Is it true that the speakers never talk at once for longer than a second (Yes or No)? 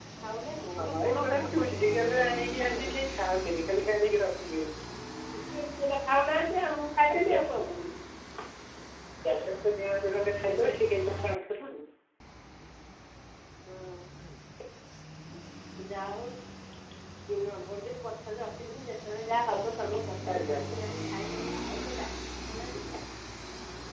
No